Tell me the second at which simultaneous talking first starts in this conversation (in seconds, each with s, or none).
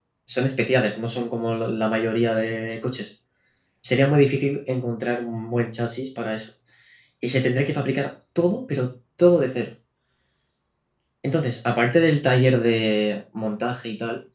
none